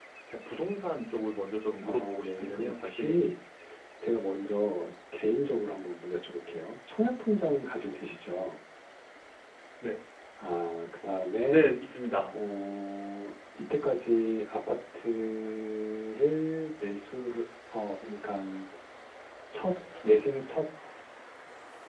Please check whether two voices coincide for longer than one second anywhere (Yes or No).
Yes